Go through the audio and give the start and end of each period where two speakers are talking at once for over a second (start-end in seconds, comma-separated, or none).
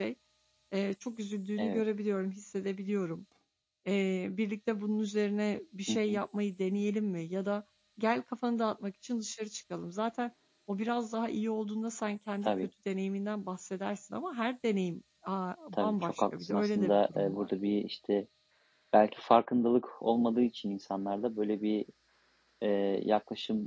15.7-17.5